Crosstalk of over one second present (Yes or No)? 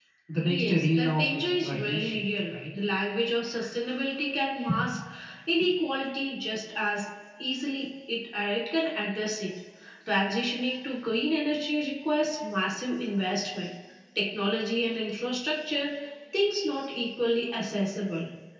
Yes